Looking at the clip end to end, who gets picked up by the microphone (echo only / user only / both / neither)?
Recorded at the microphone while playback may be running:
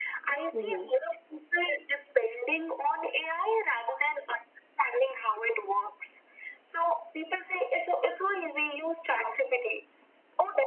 both